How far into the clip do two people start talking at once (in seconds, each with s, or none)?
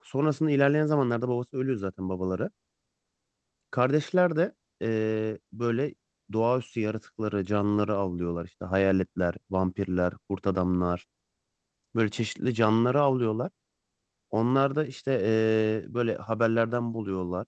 none